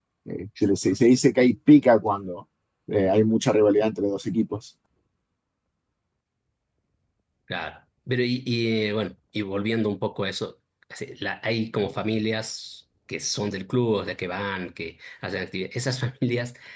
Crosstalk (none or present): none